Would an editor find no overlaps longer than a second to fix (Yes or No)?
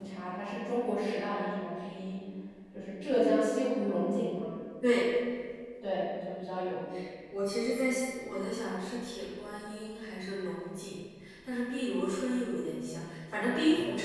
Yes